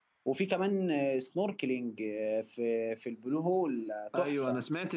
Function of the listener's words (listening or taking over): taking over